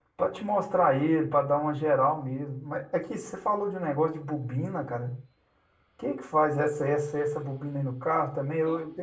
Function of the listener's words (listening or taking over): listening